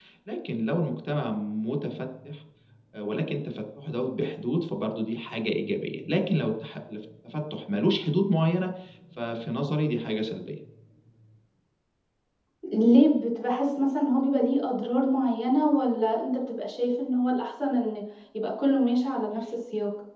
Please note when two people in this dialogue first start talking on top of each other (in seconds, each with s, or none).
none